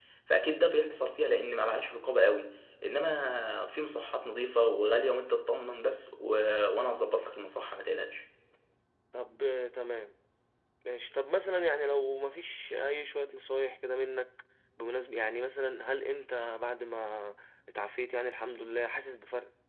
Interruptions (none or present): none